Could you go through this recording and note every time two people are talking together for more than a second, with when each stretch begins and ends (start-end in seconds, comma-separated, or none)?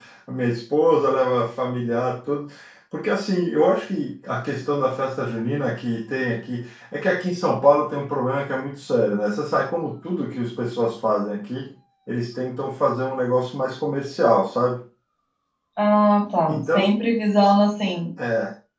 none